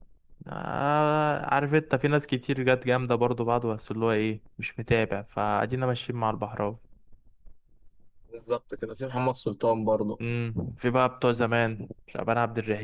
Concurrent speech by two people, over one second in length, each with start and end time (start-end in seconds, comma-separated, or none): none